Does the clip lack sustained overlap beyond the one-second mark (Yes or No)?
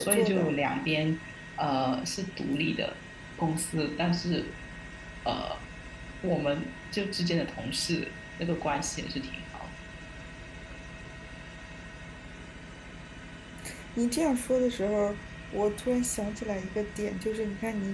Yes